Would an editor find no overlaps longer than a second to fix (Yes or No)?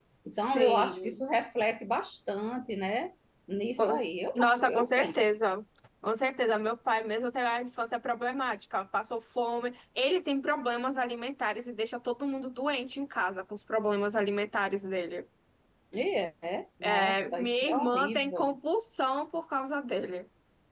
No